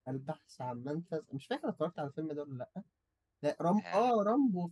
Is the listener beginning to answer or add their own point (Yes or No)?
No